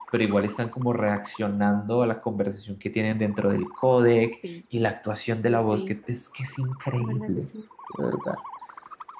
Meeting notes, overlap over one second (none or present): none